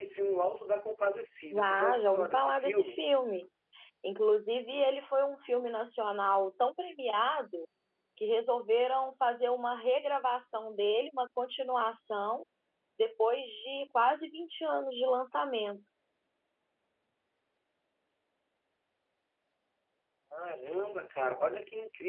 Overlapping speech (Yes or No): Yes